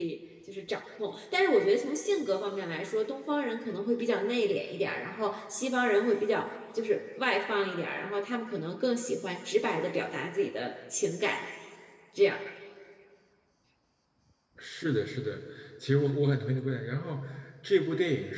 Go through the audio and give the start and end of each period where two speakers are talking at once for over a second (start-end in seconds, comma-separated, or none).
none